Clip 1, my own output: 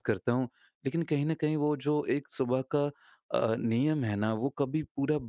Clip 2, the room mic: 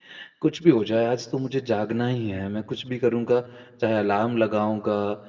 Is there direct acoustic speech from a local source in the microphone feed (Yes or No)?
Yes